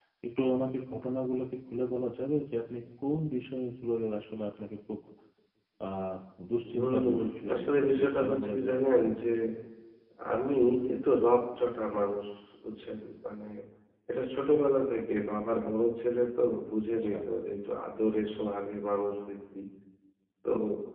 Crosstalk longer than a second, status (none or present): present